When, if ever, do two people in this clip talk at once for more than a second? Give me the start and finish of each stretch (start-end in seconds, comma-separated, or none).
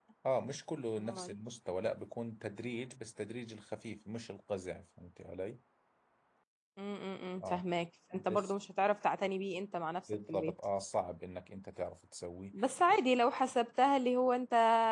none